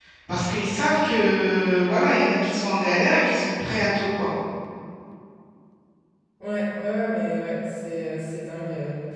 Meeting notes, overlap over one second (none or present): none